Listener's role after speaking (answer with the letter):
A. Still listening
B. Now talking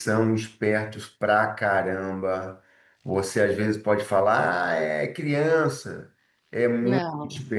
A